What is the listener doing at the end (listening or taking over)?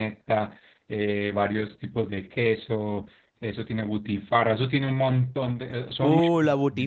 taking over